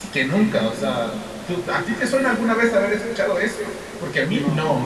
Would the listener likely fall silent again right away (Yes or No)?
Yes